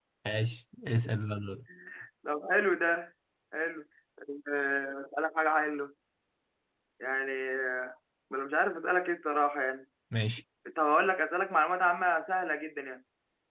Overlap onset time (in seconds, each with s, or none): none